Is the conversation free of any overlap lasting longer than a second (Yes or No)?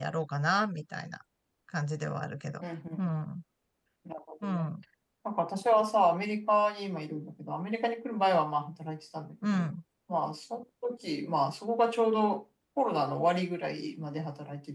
Yes